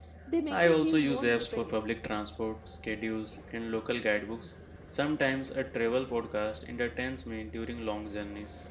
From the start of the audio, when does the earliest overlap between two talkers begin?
1 s

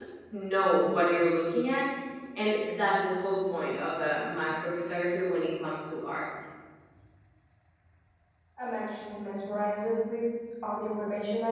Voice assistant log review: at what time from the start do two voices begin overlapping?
none

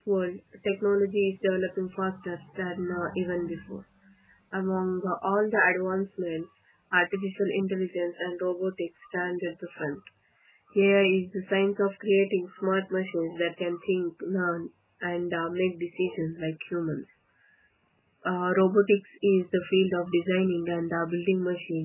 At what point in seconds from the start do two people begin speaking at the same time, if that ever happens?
none

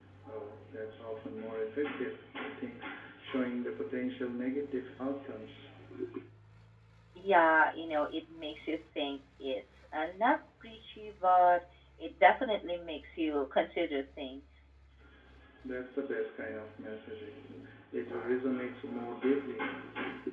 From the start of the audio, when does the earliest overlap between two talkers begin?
none

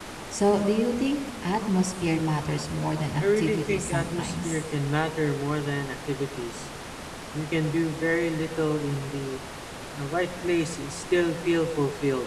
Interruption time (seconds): 3 s

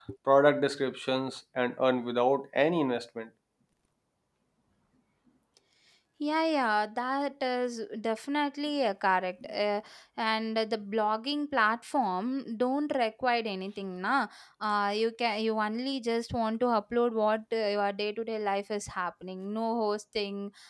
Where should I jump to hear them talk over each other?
none

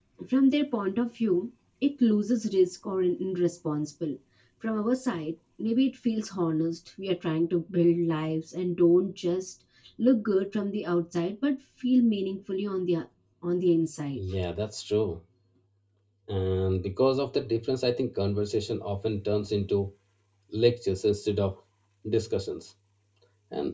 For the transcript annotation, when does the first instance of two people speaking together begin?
none

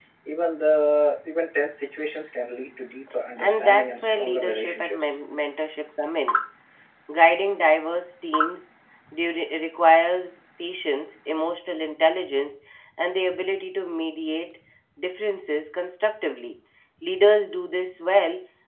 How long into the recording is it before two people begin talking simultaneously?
3 s

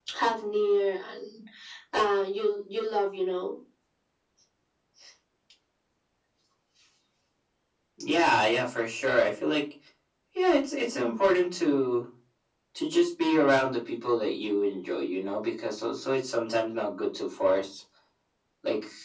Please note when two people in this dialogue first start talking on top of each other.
none

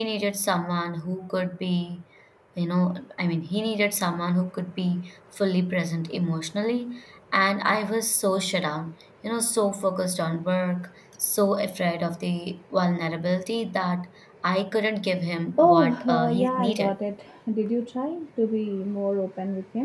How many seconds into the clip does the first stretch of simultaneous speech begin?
16 s

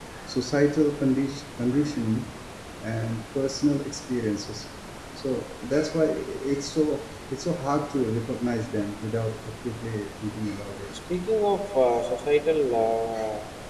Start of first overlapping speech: none

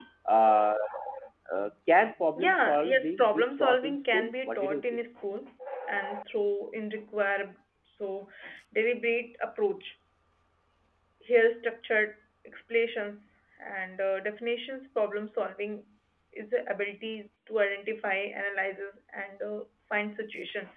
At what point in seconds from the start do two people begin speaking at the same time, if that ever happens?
2 s

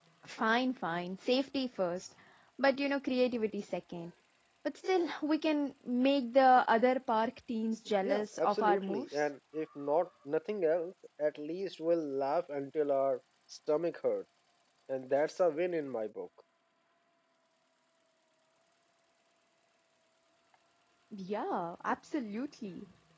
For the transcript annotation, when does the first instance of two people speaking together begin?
8 s

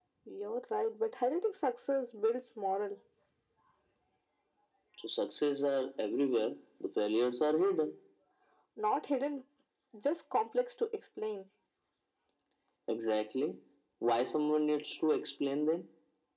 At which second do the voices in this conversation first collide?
none

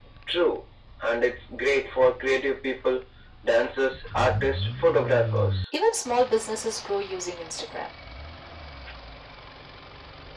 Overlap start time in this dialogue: none

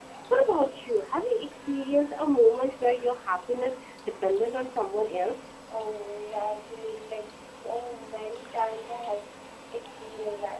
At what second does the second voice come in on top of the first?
none

